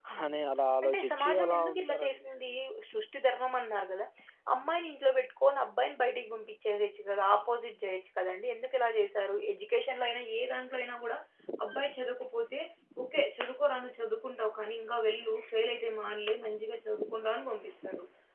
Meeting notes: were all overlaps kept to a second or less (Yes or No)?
No